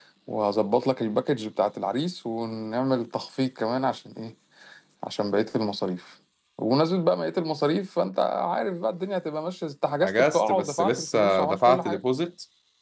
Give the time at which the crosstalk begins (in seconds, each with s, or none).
10.0 s